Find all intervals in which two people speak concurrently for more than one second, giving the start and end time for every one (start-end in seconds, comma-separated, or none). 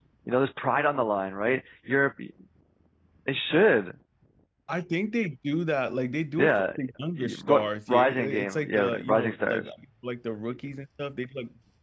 7.9-9.6